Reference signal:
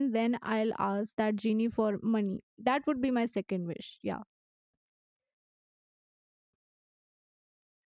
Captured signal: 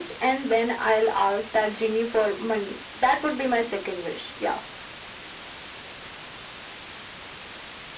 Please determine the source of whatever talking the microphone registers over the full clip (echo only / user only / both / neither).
echo only